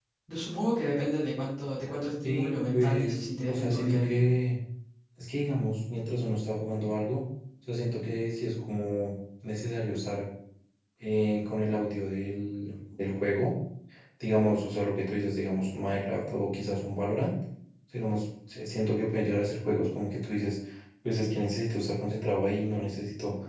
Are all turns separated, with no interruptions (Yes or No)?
No